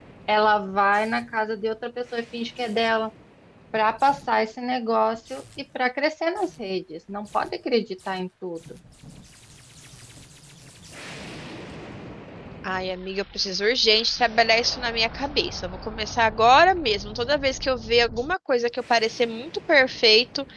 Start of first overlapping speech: none

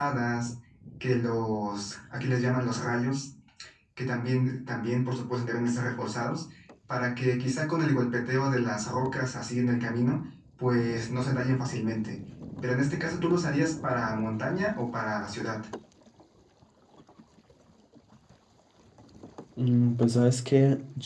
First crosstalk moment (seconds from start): none

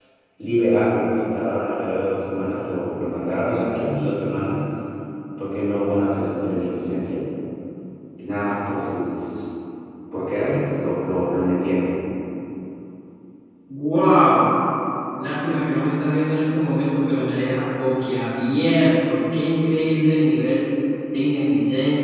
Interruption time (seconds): none

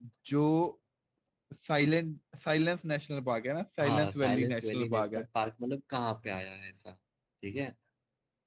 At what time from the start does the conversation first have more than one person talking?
3.8 s

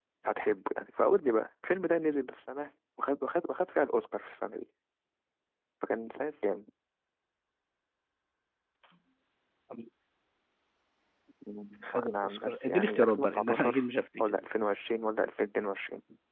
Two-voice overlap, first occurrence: 12.1 s

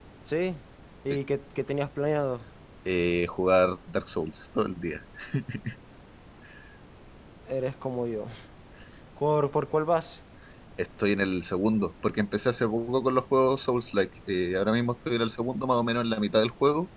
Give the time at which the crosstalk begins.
none

